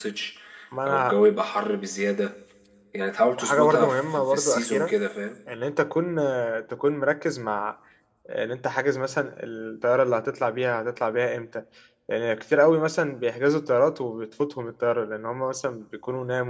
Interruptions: present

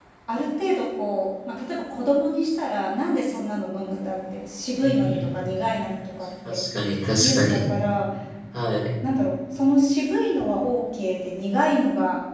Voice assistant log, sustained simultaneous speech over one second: none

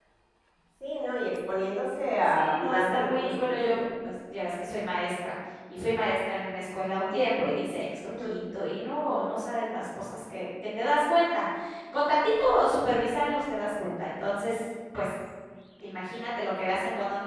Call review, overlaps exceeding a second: present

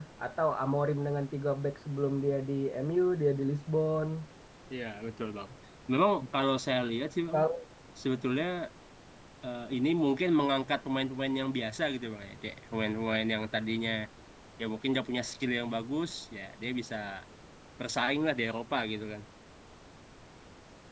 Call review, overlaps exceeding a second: none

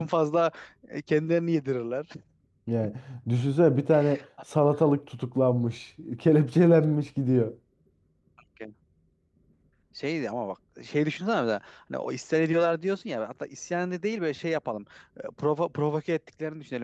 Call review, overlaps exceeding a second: none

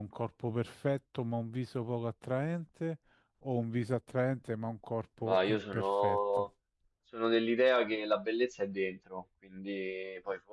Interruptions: present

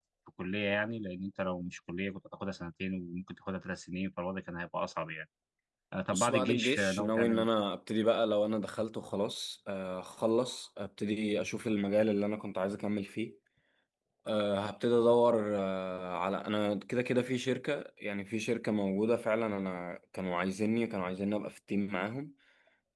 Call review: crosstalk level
present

